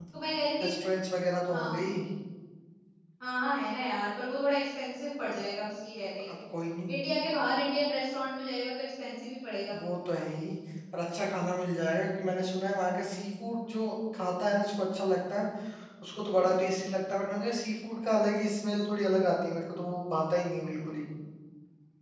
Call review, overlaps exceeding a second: none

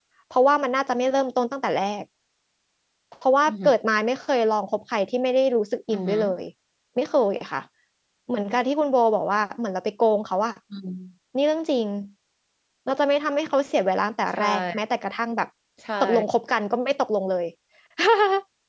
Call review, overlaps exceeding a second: none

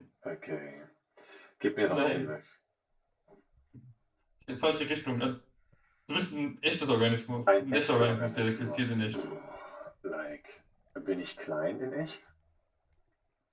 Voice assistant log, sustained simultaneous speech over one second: present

